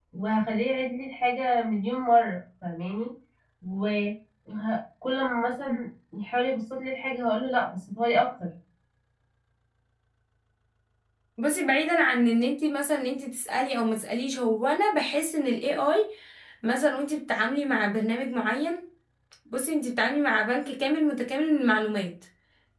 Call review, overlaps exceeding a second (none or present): none